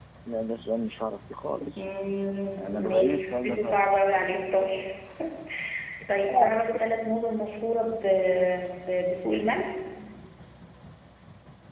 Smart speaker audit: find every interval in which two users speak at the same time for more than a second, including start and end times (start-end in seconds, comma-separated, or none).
2.5-3.9